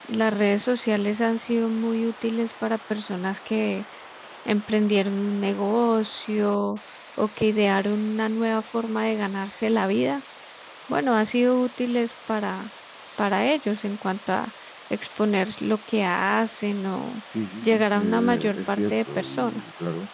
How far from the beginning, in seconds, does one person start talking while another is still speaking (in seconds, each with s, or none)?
17.6 s